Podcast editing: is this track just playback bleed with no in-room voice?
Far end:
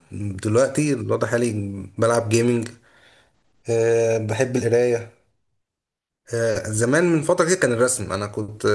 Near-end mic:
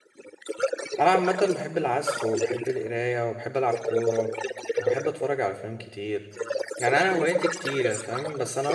No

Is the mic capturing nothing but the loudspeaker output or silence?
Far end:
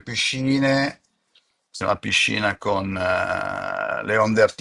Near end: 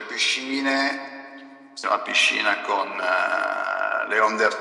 Yes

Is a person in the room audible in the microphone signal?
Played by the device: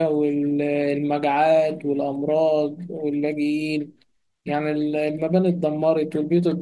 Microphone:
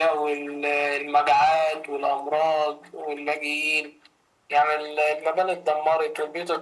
No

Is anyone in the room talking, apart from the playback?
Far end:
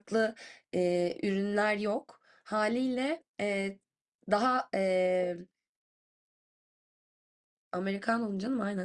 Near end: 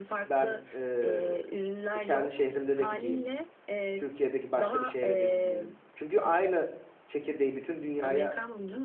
Yes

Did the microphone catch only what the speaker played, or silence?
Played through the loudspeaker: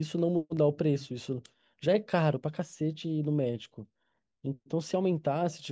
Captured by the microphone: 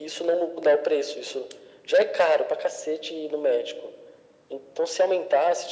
Yes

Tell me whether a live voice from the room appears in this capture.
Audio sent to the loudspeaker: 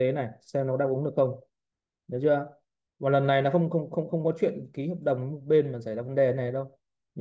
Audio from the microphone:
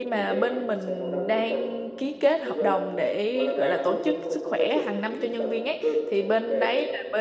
Yes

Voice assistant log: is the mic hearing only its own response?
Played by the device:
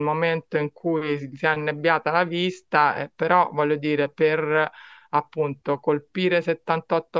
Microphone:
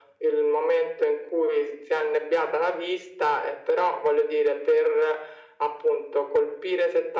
Yes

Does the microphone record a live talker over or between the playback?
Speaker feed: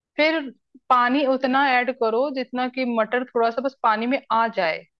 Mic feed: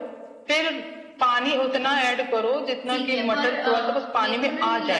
Yes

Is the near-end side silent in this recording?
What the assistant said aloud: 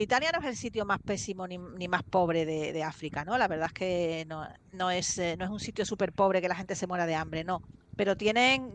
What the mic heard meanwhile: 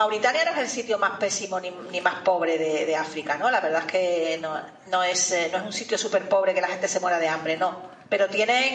Yes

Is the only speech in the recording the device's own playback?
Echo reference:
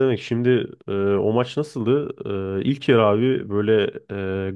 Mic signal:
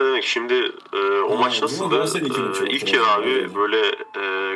No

